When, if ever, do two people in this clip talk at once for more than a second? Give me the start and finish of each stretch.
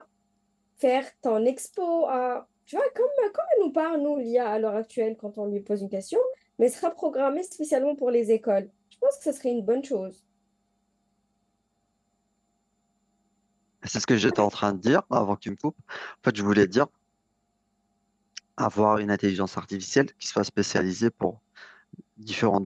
none

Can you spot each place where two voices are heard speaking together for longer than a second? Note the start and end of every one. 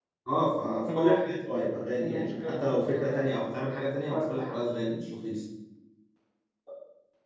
2.0-3.3

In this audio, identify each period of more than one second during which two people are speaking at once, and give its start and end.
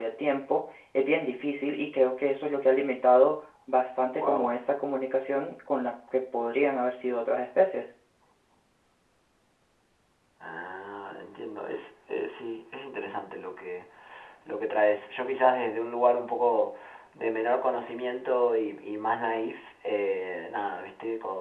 none

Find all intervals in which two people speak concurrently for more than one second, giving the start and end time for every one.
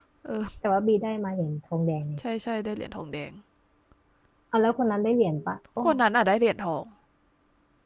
none

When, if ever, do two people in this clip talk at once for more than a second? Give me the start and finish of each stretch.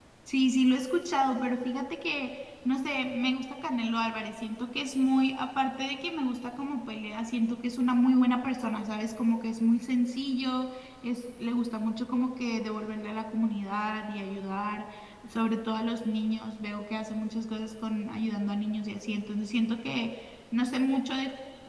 none

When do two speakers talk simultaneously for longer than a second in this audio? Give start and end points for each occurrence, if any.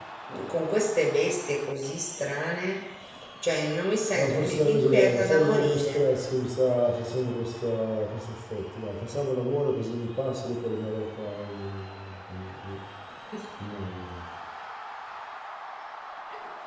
4.2-6.0

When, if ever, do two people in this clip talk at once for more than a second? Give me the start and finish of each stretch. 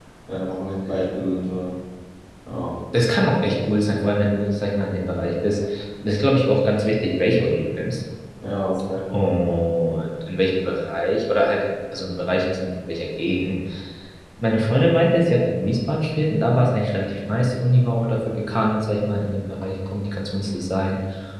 none

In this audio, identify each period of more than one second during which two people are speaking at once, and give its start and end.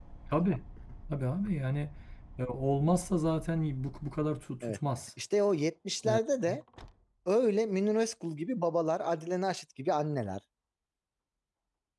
none

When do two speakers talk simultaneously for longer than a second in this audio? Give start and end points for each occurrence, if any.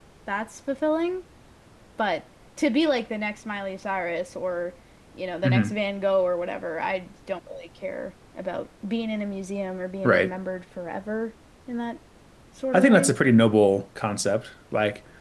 none

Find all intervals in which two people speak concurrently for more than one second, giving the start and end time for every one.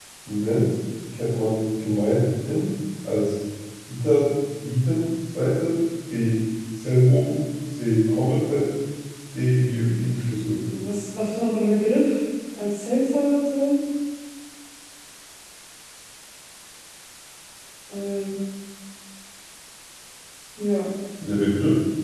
none

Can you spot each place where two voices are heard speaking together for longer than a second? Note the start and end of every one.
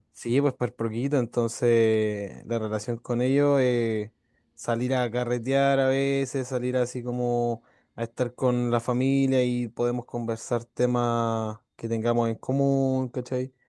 none

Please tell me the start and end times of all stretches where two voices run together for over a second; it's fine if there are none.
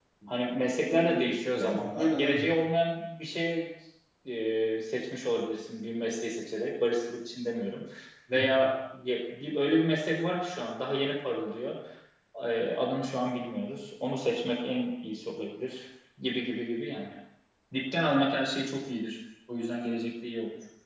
0.9-2.5

